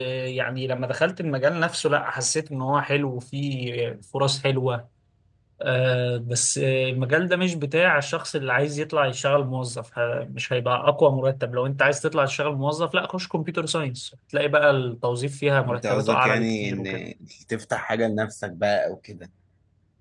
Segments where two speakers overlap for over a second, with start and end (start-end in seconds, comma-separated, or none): 15.7-17.1